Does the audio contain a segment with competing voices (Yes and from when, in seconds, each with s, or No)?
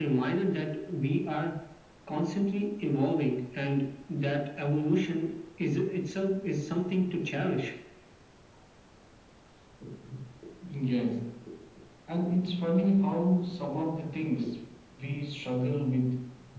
No